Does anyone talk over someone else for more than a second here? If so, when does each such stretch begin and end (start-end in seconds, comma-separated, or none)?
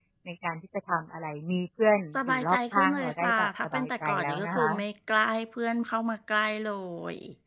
2.2-4.7